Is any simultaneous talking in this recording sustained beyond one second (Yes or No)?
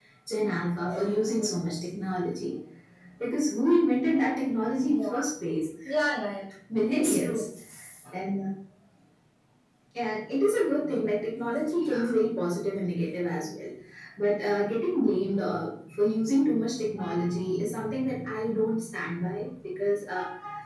No